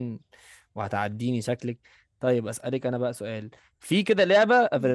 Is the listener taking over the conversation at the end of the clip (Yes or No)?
No